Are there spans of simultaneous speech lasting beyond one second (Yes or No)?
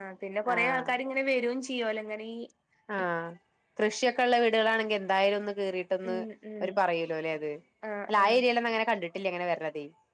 No